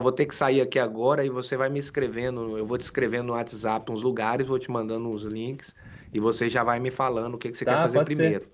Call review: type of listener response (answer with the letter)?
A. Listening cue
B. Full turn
B